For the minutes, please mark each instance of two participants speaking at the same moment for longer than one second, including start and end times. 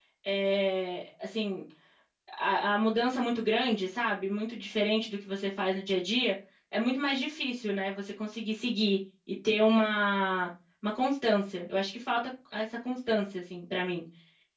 none

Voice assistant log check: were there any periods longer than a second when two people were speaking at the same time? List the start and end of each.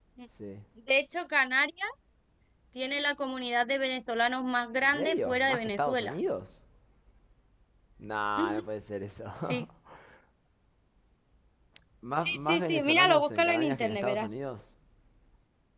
4.8-6.2, 12.2-14.4

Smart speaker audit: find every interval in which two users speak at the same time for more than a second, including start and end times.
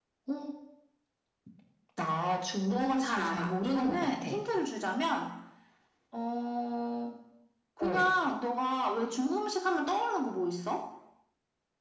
2.7-4.3

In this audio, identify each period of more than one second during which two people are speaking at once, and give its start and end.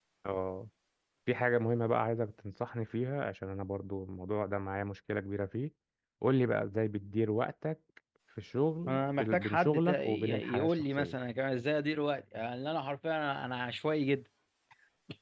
8.9-11.1

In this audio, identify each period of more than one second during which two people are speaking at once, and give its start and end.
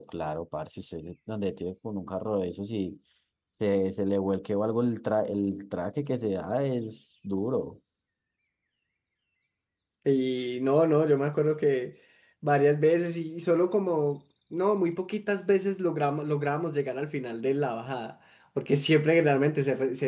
none

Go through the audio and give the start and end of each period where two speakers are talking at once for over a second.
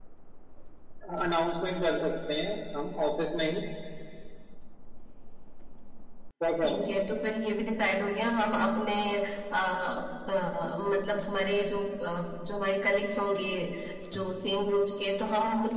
none

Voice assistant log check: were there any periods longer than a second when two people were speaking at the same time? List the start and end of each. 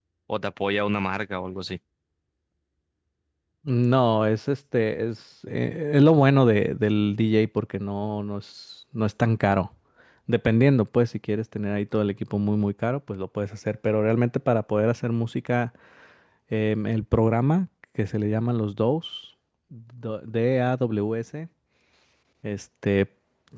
none

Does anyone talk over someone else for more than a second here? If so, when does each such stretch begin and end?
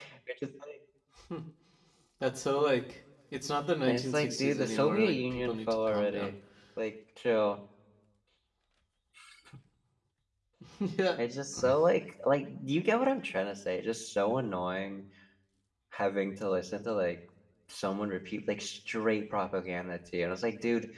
3.9-6.3

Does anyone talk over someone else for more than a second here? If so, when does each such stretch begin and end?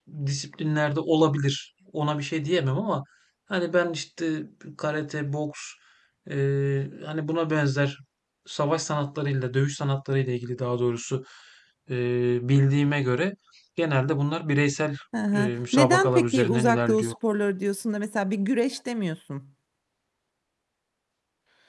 15.3-17.1

